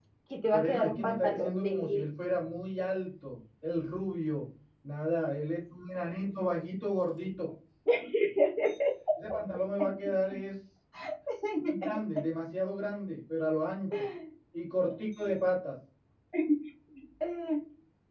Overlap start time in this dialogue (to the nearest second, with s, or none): 1 s